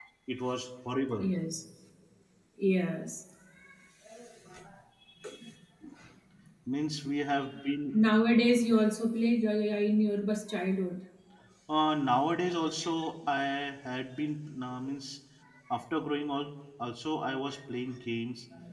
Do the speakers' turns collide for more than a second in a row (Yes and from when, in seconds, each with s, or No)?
No